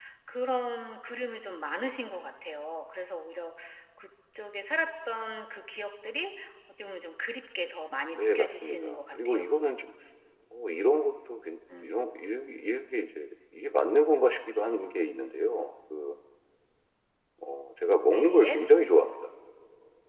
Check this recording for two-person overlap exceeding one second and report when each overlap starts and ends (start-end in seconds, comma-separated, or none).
8.1-9.4